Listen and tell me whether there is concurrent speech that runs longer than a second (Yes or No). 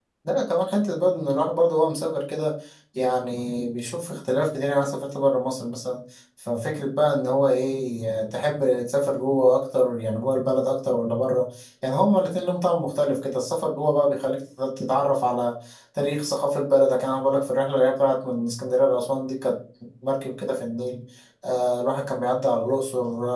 No